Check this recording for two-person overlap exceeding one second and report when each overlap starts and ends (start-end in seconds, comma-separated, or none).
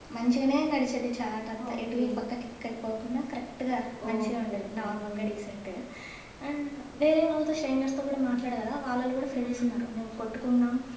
4.1-5.5